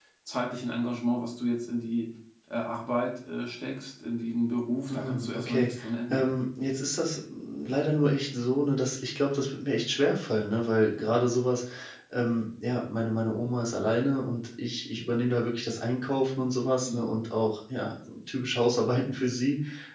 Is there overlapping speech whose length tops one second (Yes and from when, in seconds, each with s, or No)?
Yes, from 4.9 s